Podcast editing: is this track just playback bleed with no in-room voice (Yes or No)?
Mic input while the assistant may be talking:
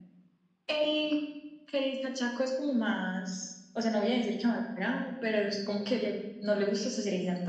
Yes